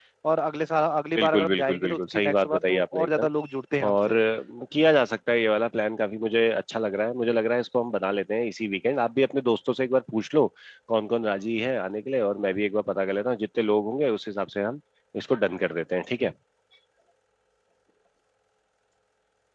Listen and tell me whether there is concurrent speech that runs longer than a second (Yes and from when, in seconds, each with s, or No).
Yes, from 1.2 s